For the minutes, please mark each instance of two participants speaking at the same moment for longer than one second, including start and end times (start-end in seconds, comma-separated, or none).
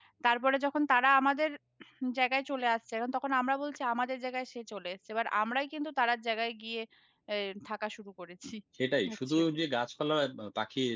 none